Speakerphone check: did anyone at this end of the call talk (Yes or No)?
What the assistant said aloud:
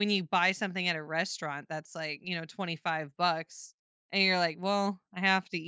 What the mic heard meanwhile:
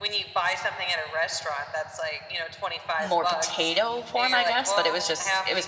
Yes